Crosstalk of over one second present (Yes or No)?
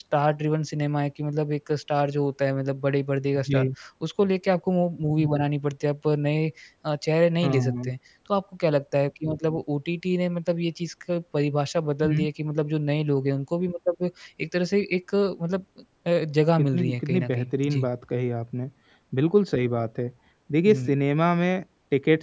Yes